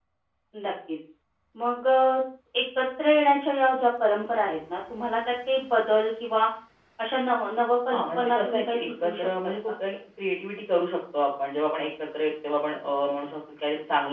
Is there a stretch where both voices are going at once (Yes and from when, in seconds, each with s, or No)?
Yes, from 7.9 s